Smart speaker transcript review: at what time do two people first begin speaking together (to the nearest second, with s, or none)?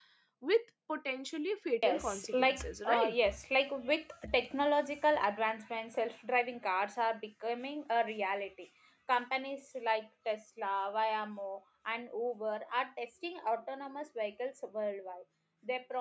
2 s